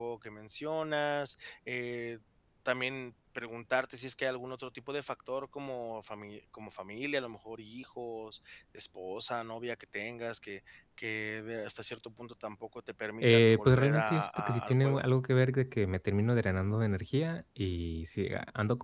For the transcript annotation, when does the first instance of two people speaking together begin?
13.2 s

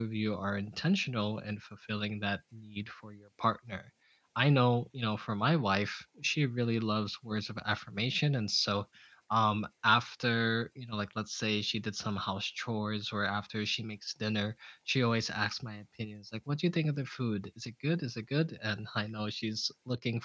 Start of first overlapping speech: none

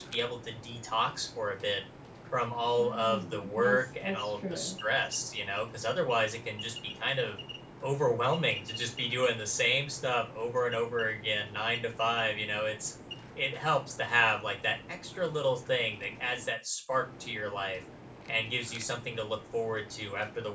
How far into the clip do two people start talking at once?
2.8 s

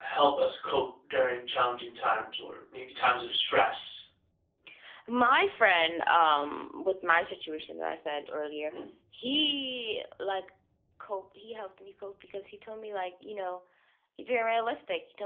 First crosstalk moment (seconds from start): none

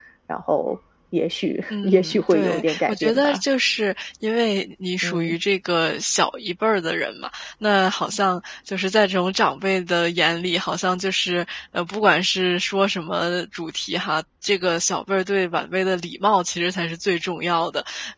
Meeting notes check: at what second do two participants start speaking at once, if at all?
1.7 s

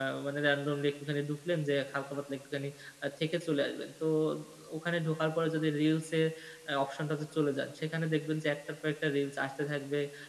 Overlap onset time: none

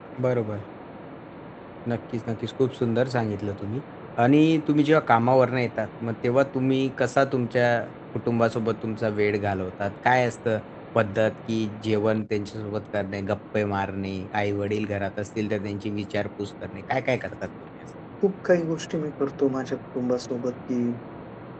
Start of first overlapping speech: none

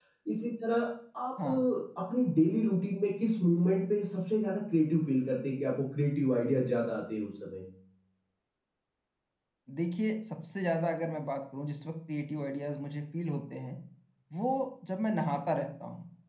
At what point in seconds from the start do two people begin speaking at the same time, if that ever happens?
none

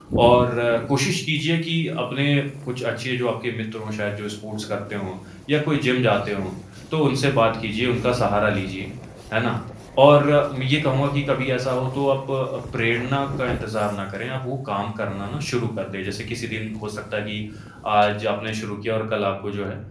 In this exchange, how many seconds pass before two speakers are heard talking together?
none

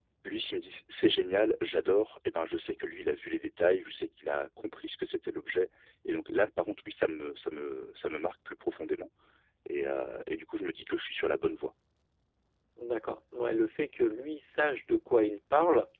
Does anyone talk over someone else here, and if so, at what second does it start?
none

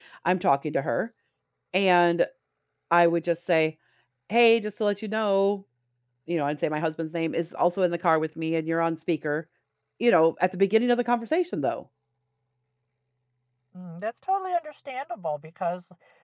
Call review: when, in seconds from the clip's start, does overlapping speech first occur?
none

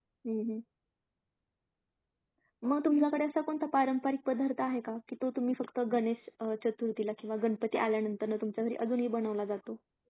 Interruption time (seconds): none

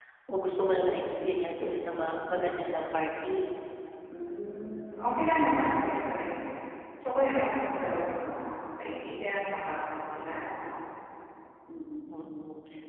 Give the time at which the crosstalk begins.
none

